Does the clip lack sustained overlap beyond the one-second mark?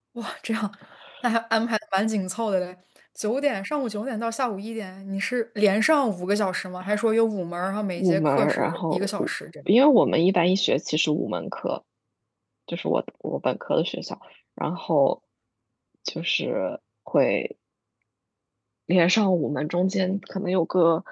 No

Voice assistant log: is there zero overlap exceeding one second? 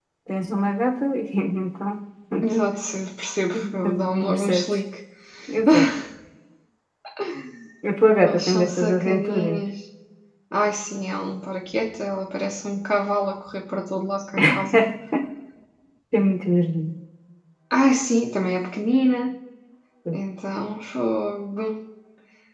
No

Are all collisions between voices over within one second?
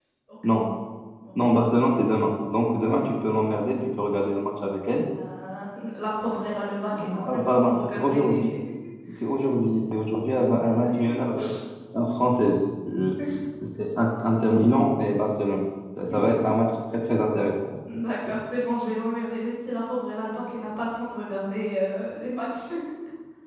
No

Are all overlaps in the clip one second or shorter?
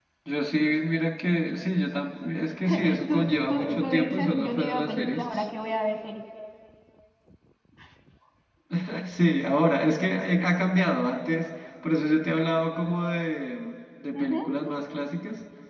No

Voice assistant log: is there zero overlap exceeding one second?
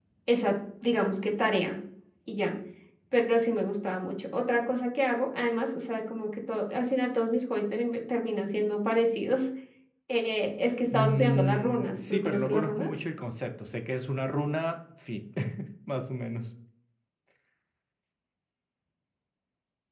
No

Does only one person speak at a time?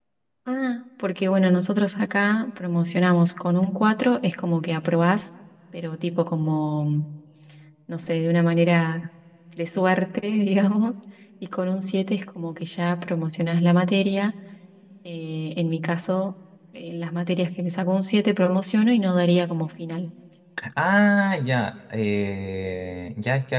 Yes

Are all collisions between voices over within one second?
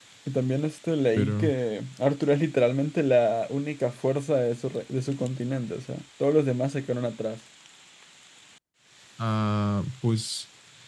Yes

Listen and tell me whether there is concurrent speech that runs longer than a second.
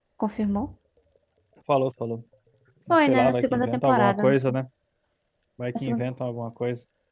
Yes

